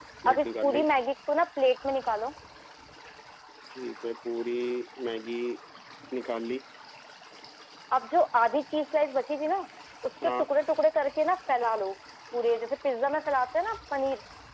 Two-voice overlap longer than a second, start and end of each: none

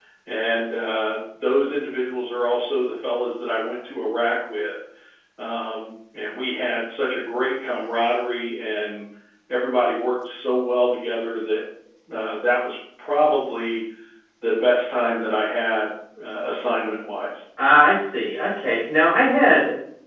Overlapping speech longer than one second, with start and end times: none

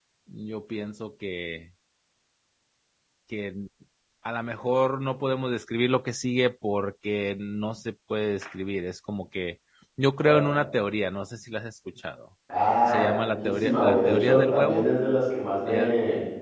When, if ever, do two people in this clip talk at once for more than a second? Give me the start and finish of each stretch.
12.9-14.9

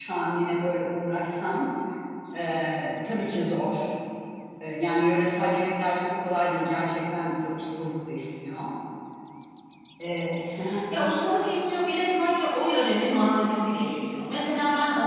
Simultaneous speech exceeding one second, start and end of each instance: none

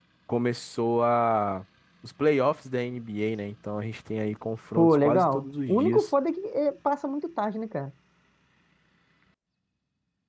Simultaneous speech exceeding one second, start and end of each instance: 4.7-6.1

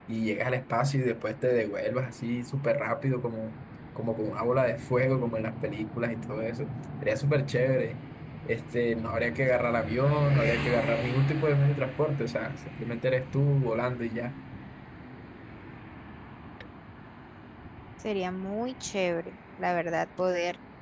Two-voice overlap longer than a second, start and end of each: none

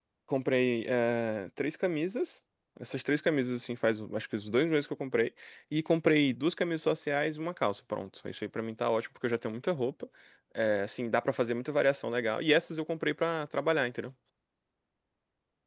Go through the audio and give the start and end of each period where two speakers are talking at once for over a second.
none

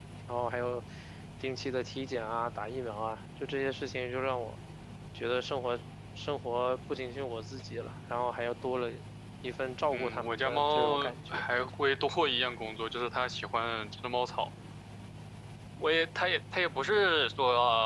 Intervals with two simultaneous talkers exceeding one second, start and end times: 9.9-11.5

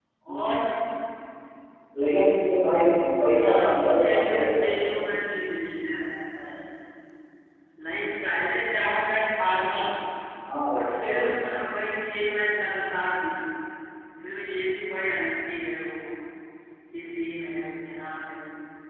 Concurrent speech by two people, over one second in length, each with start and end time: 3.4-4.8

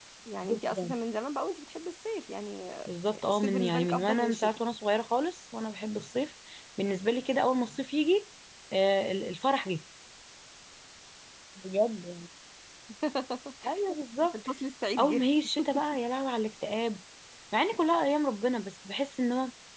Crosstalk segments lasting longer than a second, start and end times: 3.3-4.6

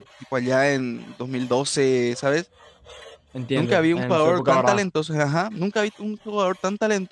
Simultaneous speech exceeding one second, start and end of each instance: 3.6-4.8

